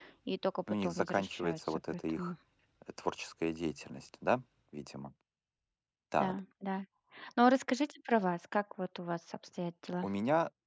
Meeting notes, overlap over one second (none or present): present